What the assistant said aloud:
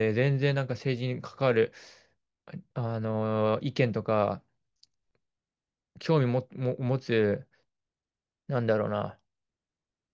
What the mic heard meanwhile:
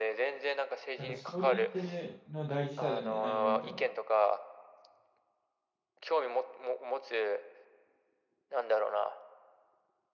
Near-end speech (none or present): present